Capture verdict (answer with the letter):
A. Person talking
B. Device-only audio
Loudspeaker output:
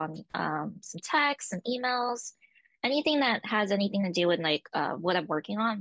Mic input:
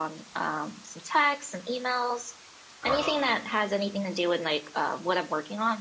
A